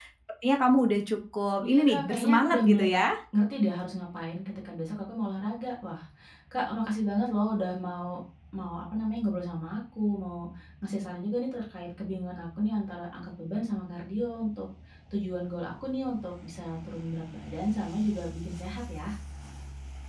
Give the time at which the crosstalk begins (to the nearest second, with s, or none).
2 s